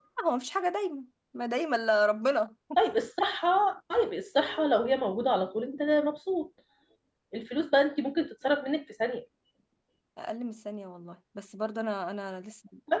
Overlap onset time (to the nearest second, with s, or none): none